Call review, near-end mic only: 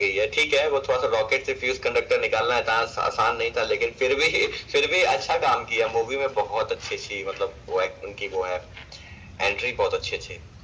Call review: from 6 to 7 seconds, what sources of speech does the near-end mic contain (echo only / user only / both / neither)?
echo only